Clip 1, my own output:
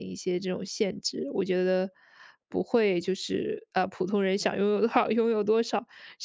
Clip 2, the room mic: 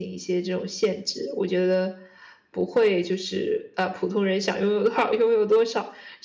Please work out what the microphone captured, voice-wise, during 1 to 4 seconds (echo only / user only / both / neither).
echo only